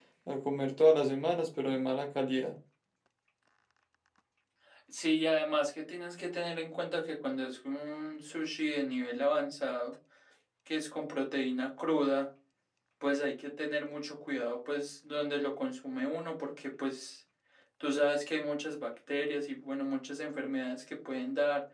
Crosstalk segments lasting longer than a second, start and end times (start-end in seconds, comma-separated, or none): none